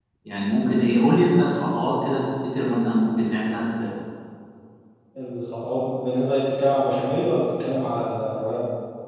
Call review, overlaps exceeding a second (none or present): none